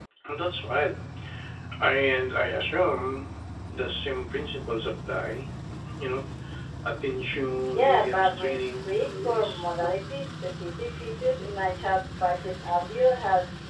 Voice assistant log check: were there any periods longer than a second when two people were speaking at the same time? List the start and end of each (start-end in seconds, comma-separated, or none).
7.7-9.6